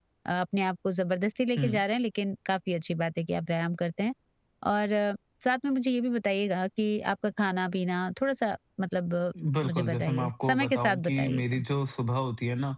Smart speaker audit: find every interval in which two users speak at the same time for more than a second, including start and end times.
9.6-11.6

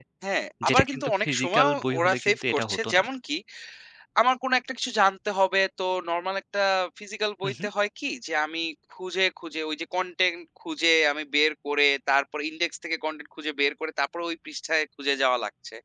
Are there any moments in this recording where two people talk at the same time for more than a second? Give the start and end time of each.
0.7-3.0

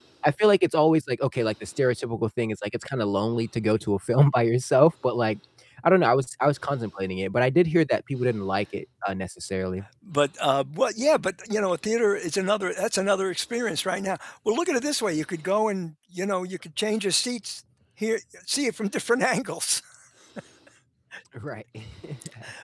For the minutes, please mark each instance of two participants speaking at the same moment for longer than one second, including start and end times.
none

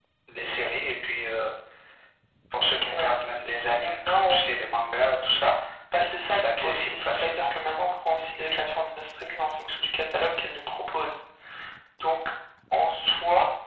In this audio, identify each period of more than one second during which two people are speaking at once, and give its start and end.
6.3-7.5

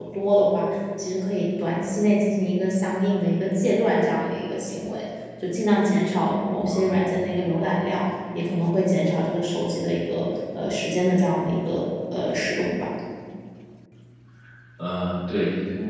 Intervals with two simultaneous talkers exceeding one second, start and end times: none

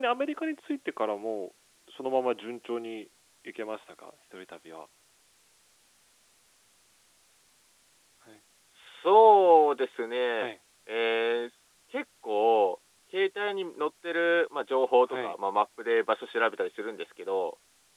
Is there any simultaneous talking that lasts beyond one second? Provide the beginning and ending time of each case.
none

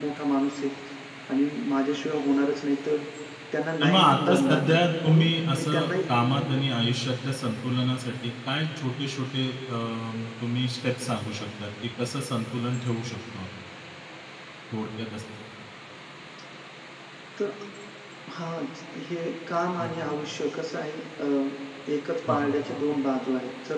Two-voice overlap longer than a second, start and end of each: 3.8-6.5

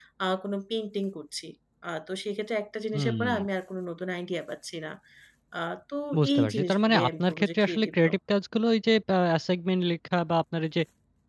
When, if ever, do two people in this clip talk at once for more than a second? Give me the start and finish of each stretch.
6.3-8.2

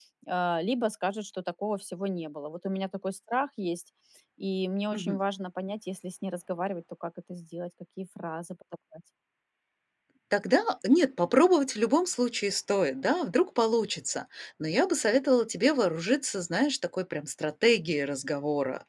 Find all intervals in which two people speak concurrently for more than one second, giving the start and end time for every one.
none

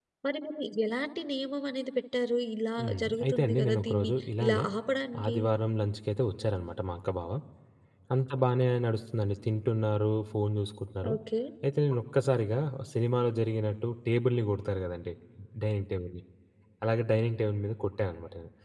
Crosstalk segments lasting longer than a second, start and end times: 2.8-4.6

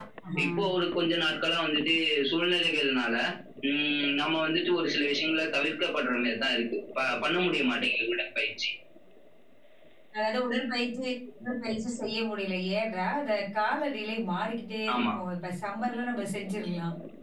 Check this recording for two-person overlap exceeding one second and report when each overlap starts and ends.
none

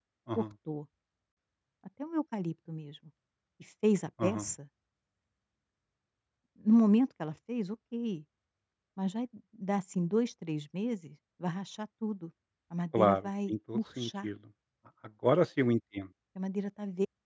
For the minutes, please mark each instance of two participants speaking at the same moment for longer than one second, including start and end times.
12.9-14.3

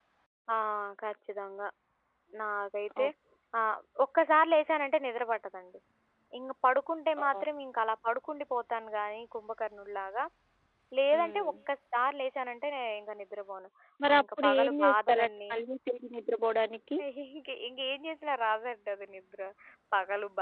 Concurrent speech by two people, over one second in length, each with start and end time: 14.1-15.3

